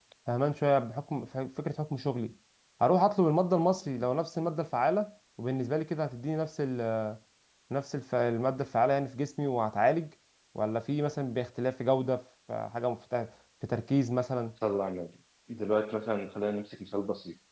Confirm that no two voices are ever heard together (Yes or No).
Yes